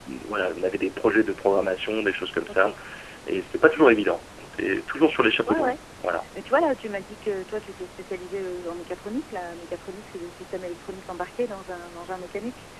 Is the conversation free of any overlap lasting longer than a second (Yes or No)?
Yes